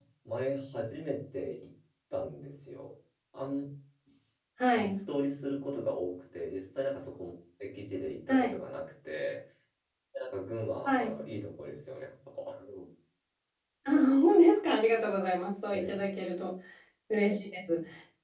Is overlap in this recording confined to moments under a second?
Yes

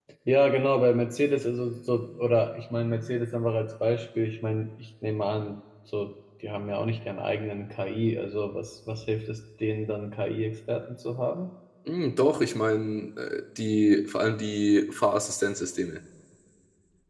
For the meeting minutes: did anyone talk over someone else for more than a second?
No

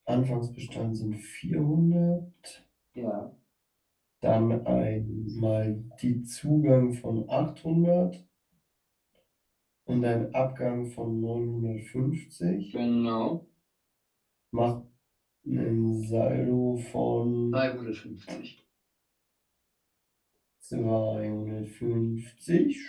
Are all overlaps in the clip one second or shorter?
Yes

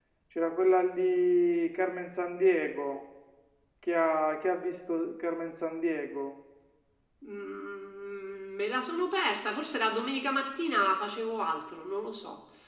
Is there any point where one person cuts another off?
No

